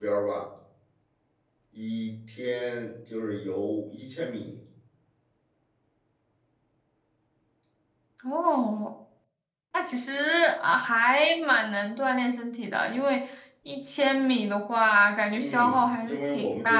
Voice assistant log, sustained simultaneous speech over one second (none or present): present